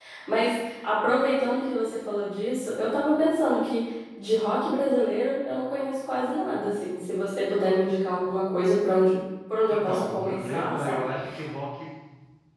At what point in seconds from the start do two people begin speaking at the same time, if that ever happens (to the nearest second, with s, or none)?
10 s